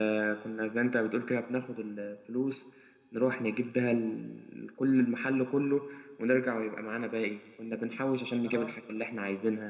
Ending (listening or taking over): listening